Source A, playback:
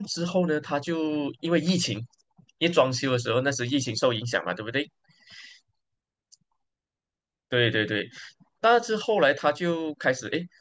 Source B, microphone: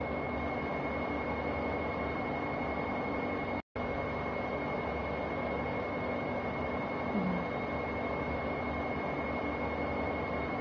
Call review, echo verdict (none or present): none